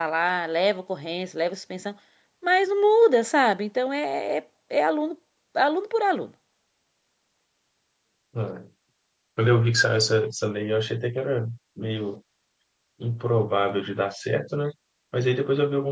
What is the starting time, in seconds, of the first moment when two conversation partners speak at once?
none

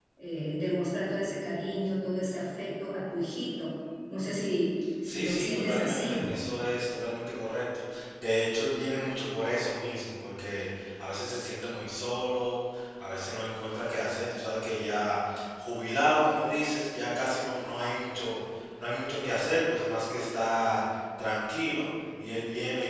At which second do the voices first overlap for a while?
5.0 s

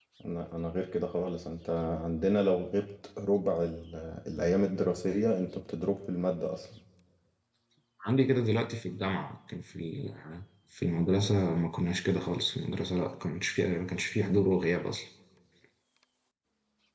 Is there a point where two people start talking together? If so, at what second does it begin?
none

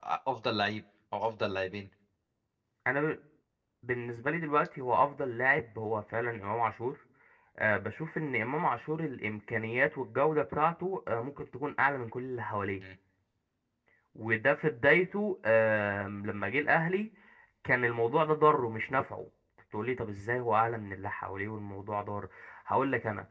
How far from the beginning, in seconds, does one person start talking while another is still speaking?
none

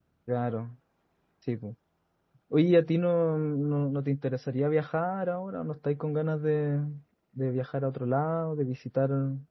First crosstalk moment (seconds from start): none

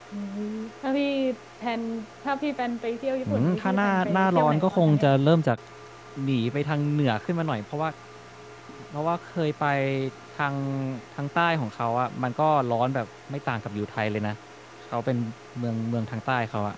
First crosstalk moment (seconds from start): 3.2 s

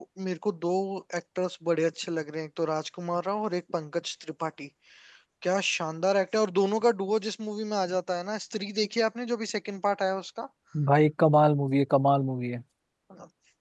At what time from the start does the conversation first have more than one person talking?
none

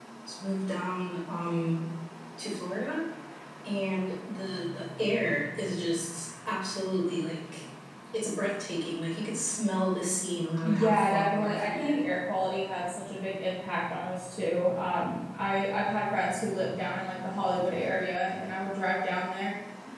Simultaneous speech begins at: 10.6 s

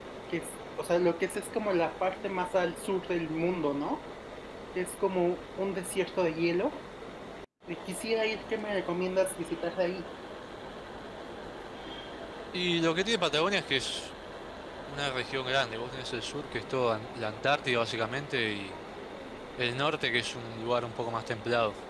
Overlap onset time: none

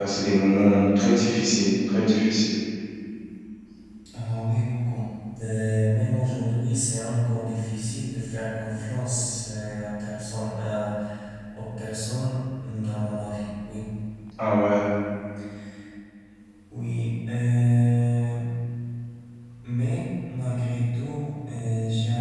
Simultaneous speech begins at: none

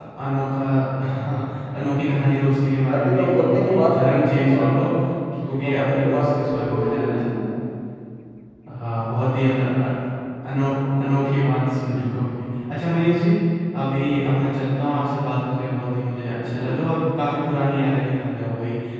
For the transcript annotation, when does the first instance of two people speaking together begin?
2.9 s

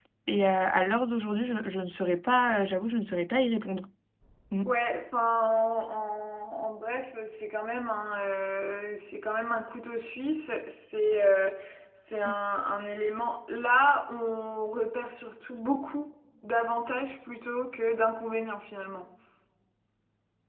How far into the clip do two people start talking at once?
none

